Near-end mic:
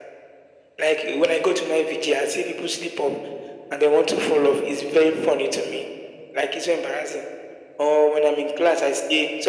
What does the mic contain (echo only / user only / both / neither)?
echo only